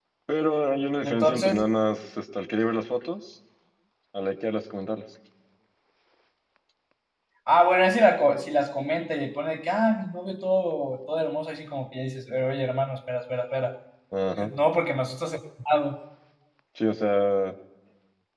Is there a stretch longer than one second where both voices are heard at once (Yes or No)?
No